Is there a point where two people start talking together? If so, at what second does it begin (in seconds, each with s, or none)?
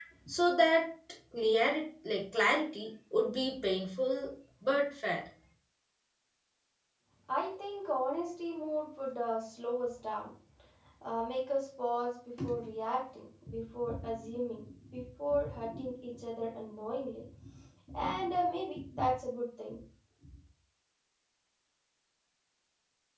none